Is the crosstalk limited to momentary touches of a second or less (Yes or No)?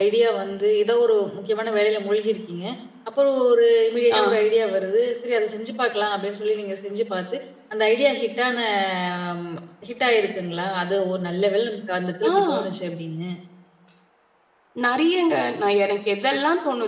Yes